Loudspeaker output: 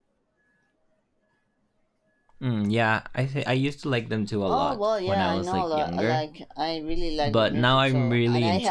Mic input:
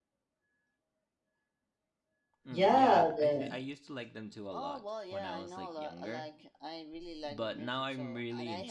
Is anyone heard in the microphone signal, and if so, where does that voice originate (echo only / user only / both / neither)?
both